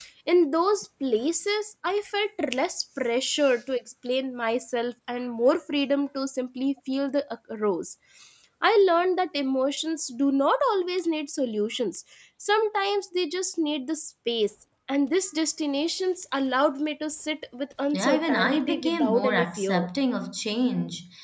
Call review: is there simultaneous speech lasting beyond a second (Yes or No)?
Yes